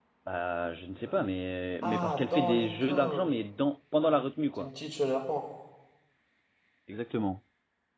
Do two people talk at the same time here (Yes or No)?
Yes